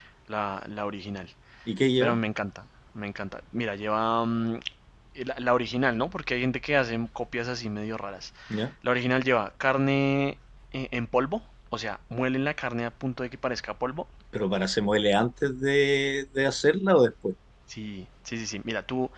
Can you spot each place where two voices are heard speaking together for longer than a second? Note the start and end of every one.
none

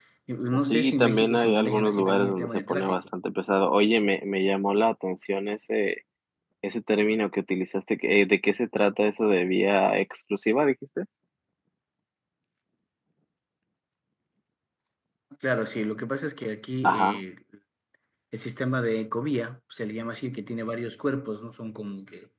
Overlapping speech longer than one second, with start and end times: 0.7-3.0

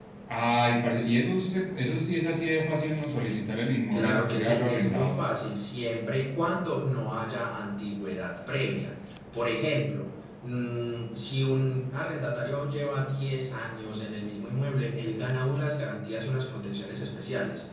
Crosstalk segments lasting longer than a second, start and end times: 3.9-5.2

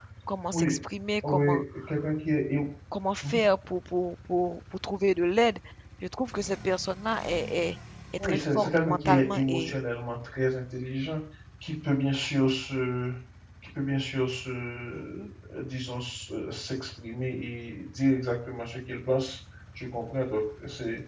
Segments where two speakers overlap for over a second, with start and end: 8.2-9.8

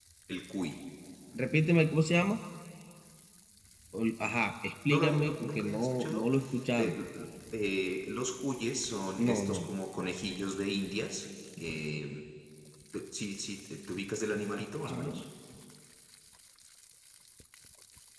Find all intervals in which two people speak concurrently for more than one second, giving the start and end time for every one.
4.9-6.2

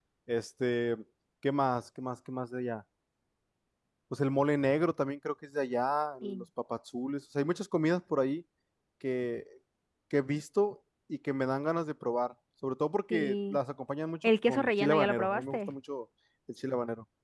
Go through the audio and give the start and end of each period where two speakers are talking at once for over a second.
14.2-15.7

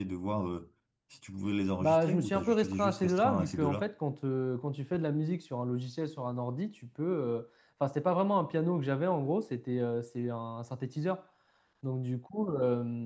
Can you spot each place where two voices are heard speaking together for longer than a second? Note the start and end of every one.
1.8-3.9

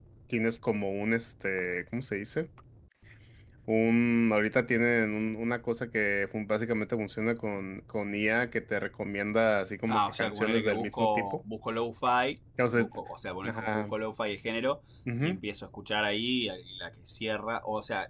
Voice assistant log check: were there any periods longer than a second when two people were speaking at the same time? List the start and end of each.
9.9-11.4

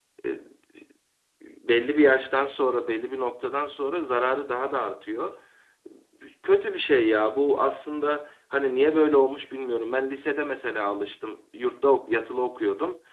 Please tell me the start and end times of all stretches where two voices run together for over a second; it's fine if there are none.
none

